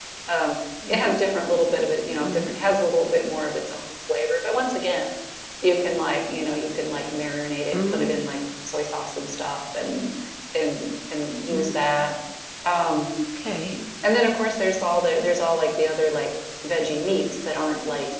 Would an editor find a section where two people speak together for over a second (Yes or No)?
No